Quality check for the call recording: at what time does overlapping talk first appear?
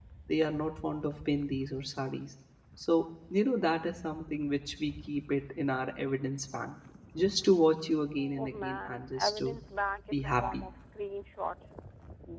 8.2 s

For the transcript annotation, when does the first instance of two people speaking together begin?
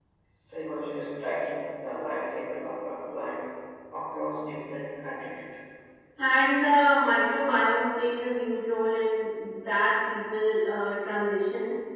none

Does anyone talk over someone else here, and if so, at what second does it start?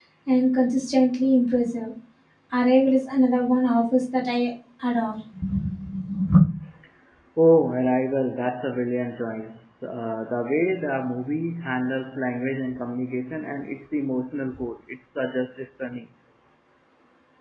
none

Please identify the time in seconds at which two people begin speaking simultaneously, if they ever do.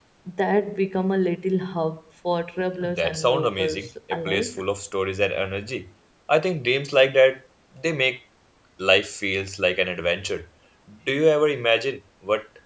2.8 s

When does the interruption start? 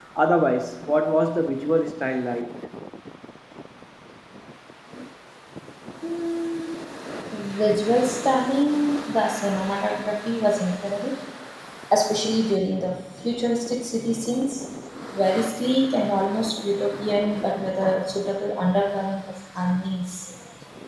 none

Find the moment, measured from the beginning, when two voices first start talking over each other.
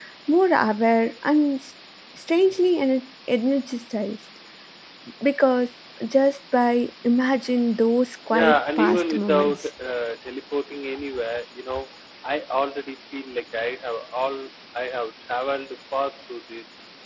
8.3 s

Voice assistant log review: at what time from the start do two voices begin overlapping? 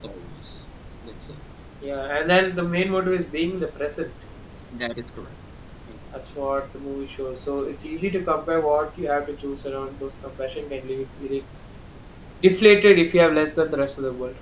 none

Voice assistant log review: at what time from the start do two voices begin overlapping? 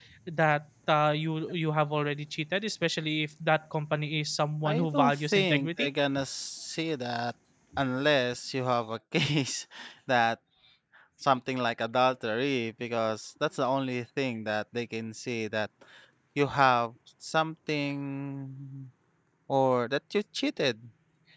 4.7 s

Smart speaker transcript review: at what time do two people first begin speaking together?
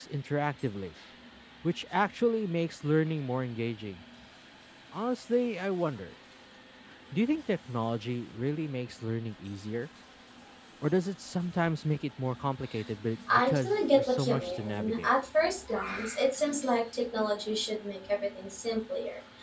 13.3 s

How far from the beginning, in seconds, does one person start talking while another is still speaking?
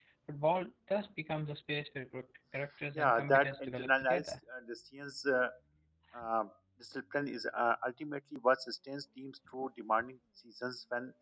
3.0 s

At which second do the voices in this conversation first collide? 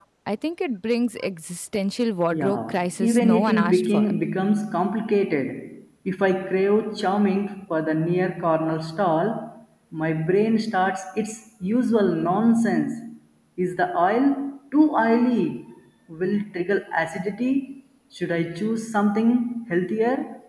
2.3 s

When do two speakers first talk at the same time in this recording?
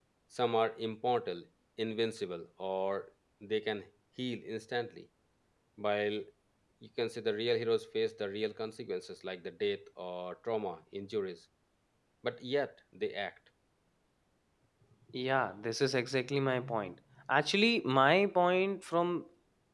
none

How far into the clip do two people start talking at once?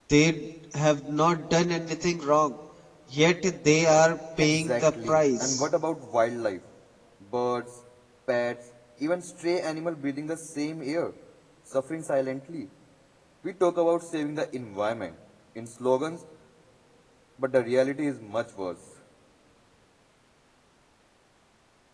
4.4 s

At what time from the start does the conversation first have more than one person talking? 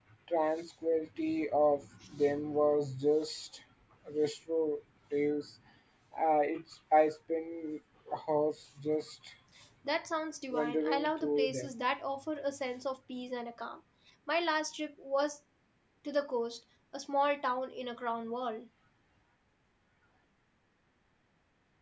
10.5 s

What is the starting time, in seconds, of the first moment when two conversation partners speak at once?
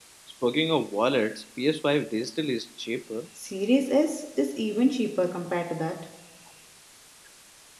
none

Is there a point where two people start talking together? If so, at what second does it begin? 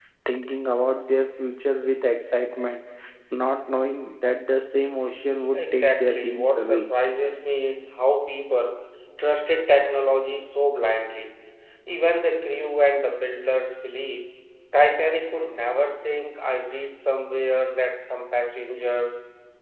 5.5 s

